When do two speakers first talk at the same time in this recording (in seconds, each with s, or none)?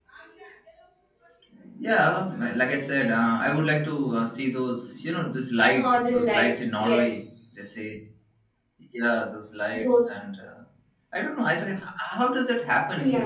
5.6 s